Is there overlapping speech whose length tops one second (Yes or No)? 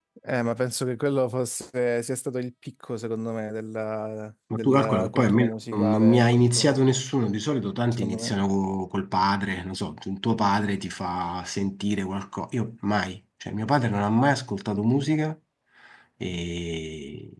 Yes